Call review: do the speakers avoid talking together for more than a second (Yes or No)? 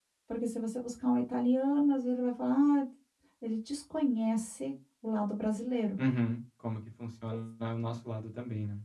Yes